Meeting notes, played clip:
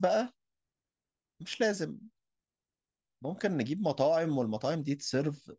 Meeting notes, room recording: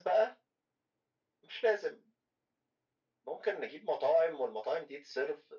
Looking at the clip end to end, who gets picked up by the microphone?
echo only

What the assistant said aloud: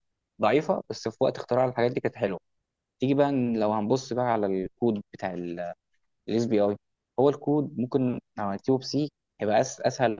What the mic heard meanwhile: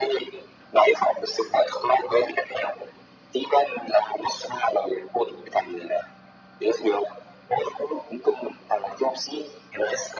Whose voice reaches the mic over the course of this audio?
echo only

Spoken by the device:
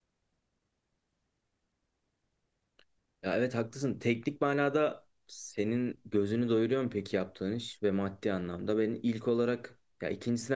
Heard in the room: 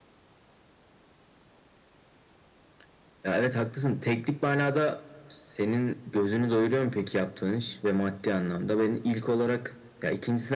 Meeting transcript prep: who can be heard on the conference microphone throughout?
echo only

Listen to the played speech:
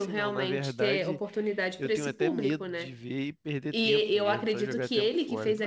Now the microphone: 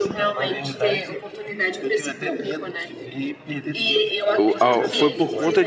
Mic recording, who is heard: both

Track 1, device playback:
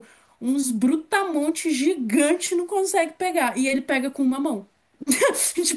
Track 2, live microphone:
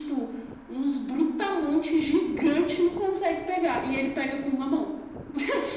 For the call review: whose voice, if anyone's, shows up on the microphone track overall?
echo only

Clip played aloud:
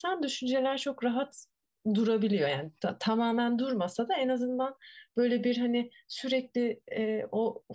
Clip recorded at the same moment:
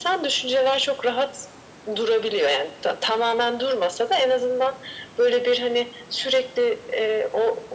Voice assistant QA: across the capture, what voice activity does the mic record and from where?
echo only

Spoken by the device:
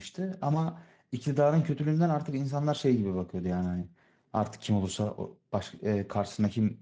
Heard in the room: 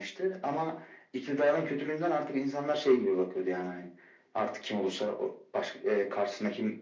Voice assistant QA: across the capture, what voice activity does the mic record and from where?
echo only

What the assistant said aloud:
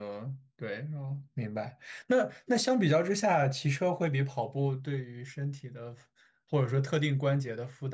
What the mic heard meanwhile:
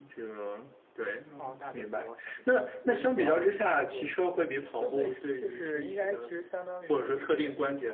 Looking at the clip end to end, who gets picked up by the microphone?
both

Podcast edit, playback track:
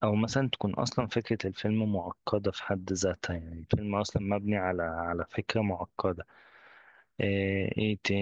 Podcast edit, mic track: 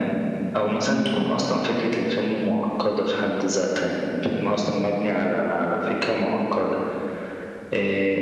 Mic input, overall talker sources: echo only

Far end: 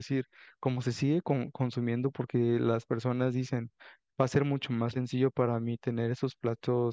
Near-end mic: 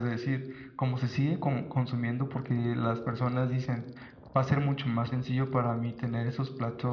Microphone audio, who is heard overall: echo only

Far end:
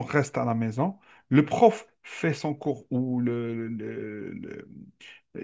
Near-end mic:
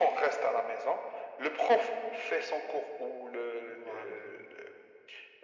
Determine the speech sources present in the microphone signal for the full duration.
both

